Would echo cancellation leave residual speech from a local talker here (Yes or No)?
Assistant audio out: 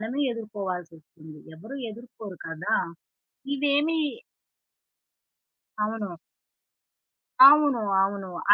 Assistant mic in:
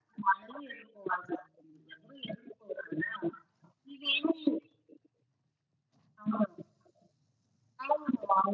No